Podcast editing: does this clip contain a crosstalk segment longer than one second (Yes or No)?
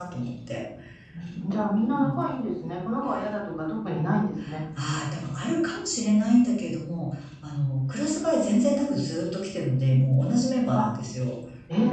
No